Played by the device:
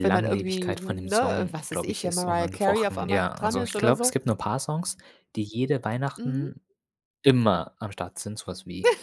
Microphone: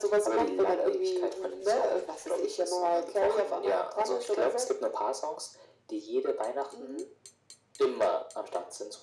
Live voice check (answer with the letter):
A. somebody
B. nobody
B